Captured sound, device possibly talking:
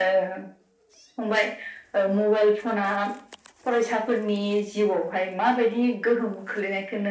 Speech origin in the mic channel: echo only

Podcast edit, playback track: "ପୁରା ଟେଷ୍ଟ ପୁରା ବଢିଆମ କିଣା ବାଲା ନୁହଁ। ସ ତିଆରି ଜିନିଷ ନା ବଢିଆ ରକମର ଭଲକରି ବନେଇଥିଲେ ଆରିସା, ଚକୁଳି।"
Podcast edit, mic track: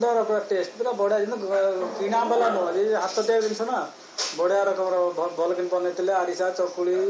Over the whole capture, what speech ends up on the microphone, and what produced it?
both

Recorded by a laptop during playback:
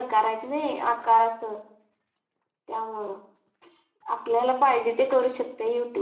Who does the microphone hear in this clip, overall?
echo only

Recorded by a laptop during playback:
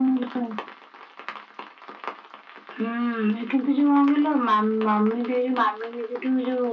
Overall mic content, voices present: echo only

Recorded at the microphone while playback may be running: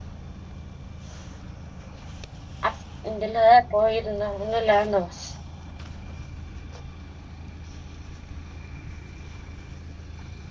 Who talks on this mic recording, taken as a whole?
user only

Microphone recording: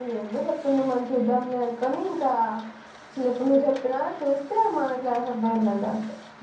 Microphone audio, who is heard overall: user only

